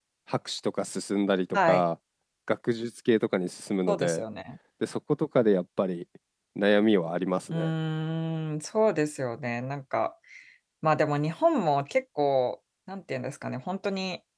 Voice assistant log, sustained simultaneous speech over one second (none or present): none